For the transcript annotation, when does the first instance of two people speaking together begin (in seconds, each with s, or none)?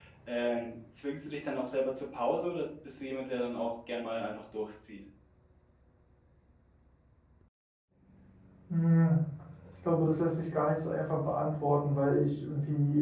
none